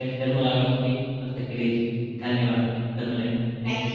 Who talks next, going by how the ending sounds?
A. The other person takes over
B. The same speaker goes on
A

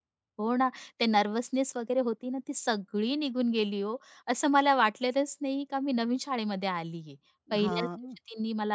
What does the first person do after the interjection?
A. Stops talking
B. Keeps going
B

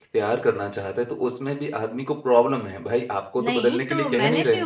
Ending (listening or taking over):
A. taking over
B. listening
A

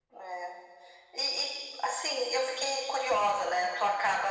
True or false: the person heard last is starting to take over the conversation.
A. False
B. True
A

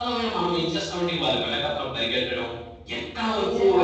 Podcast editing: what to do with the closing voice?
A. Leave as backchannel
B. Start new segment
A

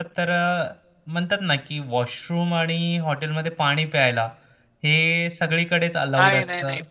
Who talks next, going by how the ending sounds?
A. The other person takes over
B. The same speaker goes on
A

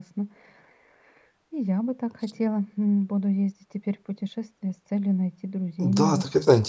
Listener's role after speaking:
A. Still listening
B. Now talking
B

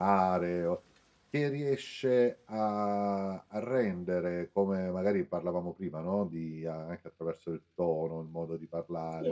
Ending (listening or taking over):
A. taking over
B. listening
B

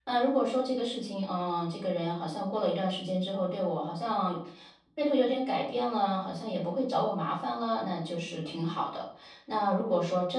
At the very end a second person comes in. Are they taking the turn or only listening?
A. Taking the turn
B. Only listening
B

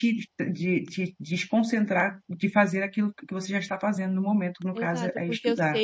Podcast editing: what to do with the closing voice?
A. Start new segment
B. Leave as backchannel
A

